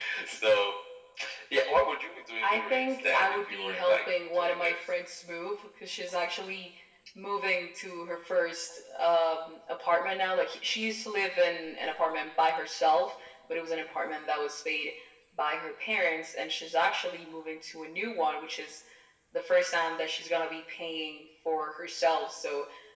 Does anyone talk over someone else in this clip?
Yes, from 2.4 s

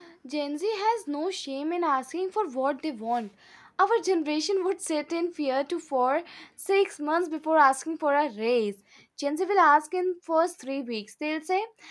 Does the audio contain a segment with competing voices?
No

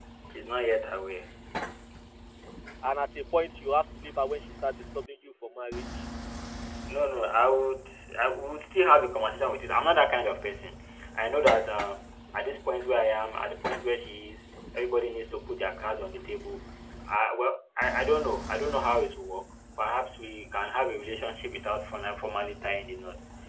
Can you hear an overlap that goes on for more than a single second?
No

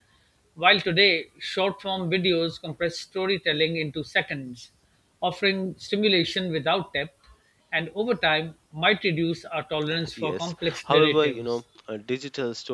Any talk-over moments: Yes, from 10.2 s

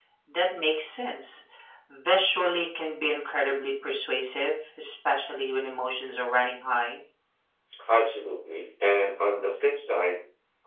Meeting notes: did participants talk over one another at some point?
No

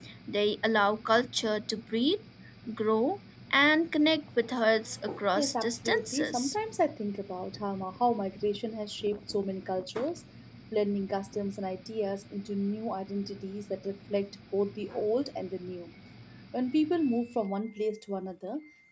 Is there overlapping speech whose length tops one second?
Yes, from 5.4 s

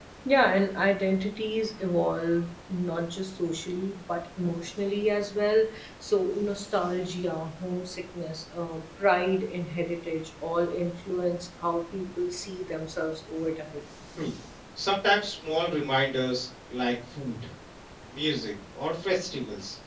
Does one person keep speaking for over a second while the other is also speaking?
No

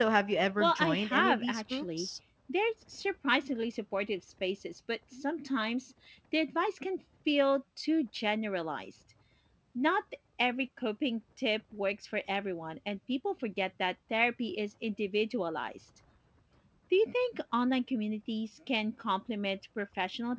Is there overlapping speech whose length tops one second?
Yes, from 0.6 s

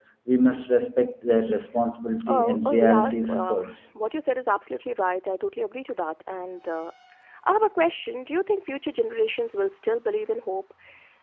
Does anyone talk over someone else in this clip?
Yes, from 2.3 s

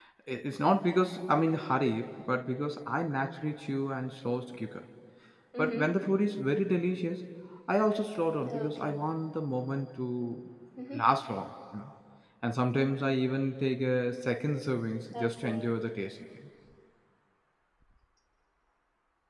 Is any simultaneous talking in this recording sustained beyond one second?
No

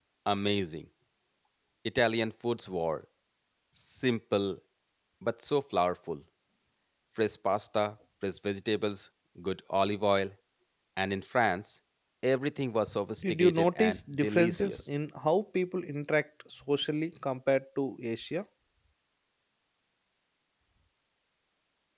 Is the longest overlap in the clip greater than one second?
Yes, from 13.2 s

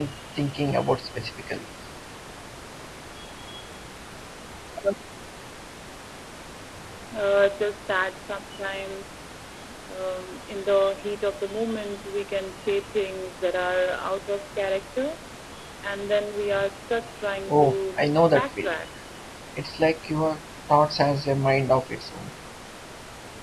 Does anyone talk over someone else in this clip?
Yes, from 17.5 s

